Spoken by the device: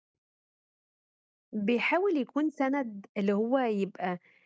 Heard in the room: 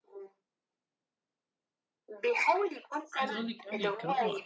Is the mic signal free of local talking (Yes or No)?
No